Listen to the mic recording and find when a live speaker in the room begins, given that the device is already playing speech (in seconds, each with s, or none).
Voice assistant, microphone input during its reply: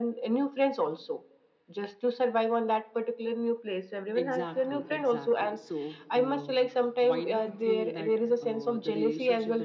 4.1 s